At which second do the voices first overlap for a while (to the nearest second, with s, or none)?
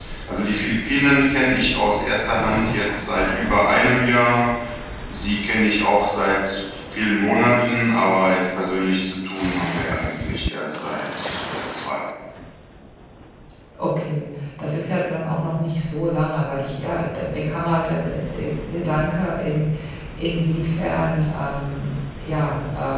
none